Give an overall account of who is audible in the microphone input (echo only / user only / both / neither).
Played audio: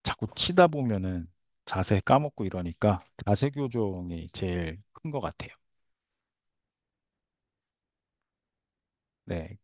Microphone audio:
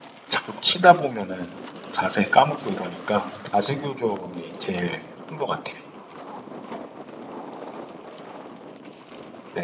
echo only